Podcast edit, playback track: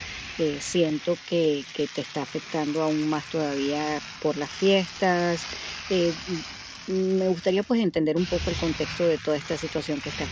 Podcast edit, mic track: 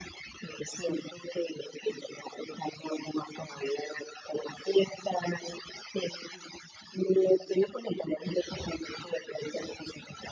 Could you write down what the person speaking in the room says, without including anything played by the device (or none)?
none